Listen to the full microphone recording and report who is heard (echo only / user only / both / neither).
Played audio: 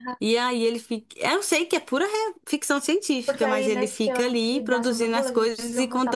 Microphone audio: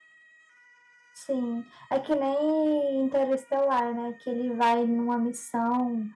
user only